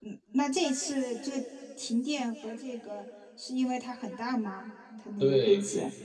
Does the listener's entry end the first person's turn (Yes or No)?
Yes